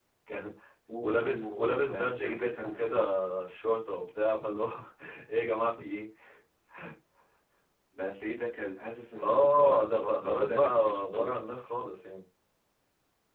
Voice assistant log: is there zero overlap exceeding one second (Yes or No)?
No